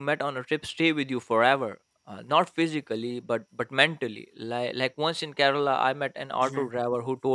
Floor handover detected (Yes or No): No